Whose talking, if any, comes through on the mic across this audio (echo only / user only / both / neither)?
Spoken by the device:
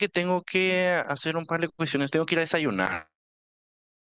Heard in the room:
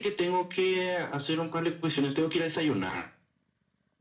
echo only